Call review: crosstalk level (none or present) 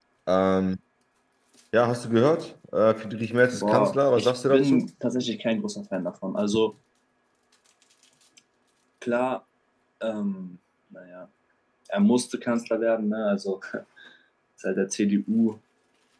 present